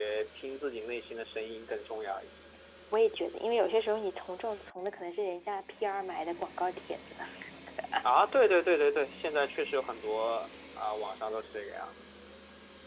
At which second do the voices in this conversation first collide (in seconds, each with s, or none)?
none